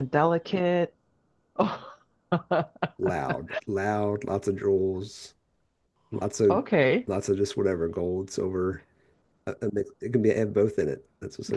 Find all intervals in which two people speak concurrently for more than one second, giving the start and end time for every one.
none

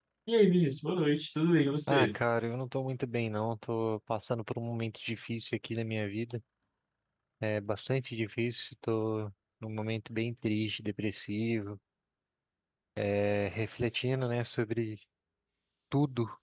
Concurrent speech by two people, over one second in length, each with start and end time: none

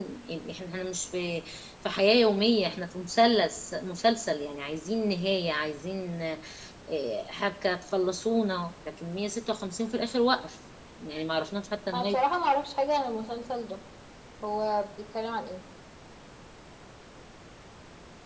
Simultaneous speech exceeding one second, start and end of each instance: none

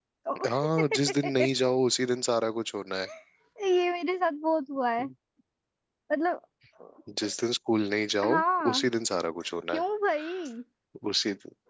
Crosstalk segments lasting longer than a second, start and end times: none

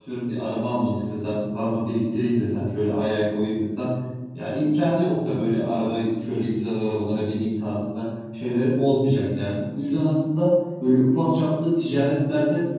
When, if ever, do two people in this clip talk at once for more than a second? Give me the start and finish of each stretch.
none

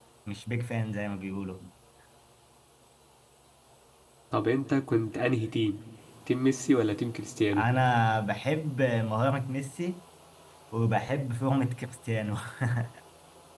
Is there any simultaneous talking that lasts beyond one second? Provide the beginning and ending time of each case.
none

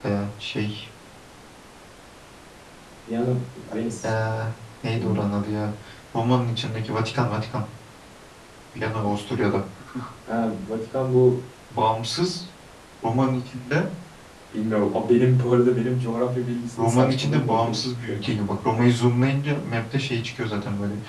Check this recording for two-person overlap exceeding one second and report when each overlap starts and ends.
16.8-18.3

